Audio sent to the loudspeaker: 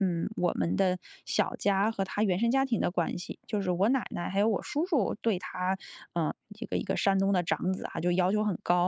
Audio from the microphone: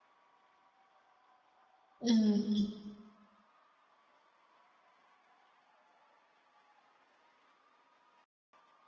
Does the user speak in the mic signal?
Yes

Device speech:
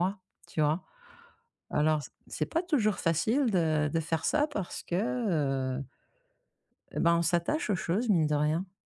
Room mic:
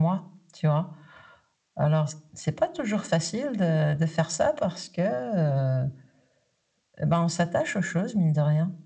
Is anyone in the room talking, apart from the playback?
No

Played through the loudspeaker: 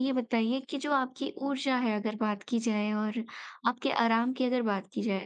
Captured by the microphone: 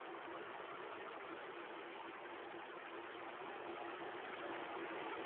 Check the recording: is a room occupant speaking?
No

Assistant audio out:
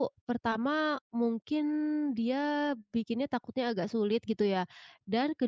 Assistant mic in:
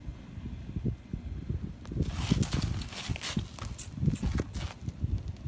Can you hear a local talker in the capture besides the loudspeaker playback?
No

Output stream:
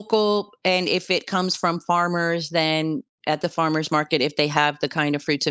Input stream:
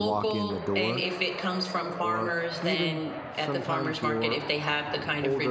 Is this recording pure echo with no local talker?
No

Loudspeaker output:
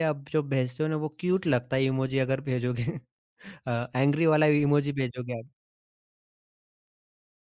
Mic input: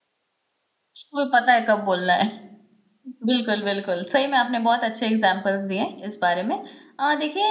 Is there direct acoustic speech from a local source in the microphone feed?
Yes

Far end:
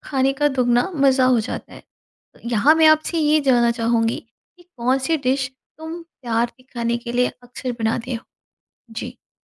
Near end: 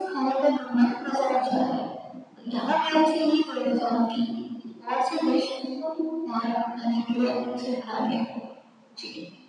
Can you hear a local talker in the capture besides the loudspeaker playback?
No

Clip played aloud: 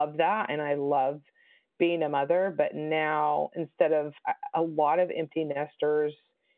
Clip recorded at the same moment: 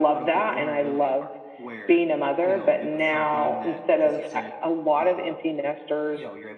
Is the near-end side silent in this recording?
No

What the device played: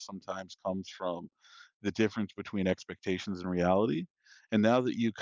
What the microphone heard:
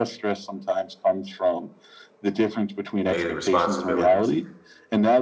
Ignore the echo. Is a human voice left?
Yes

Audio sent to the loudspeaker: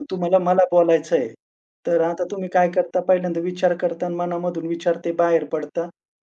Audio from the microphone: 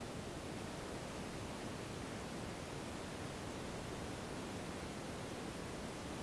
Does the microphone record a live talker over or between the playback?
No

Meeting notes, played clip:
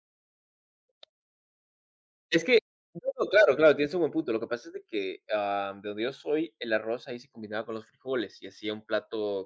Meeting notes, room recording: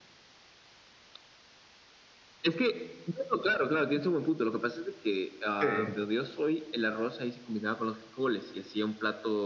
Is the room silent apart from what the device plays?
No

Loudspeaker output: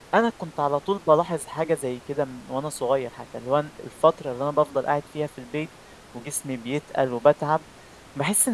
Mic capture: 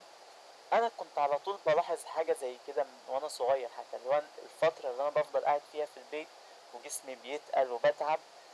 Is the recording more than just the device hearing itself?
No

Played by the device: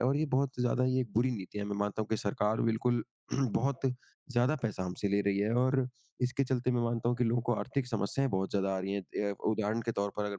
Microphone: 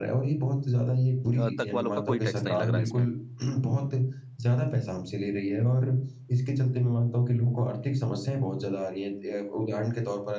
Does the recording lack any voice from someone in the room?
No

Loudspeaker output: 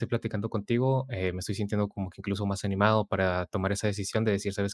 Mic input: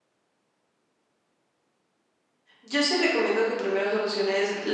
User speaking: Yes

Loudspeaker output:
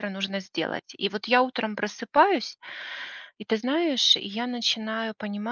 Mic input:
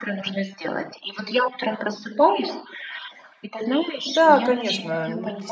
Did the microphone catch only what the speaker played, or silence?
No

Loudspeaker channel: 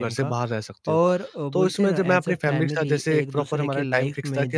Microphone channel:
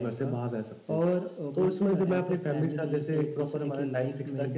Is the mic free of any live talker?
Yes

